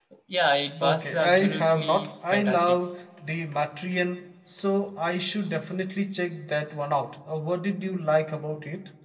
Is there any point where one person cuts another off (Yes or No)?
Yes